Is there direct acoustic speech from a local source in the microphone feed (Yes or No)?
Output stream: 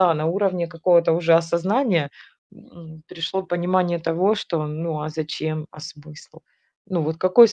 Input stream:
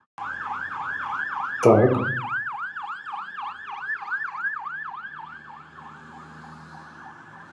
Yes